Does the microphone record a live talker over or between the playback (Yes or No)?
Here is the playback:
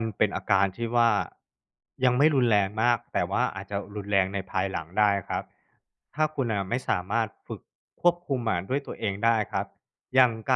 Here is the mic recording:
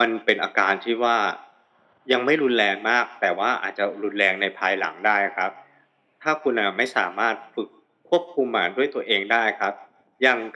No